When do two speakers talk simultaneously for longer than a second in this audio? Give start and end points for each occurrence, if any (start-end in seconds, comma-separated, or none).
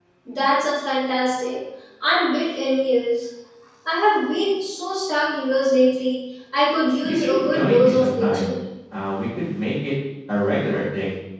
7.0-8.5